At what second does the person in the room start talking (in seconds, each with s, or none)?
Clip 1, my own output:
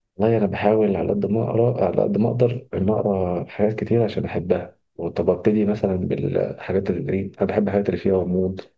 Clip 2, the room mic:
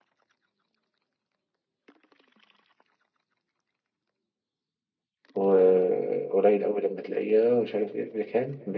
5.3 s